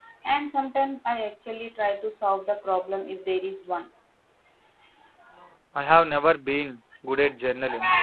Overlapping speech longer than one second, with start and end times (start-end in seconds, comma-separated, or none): none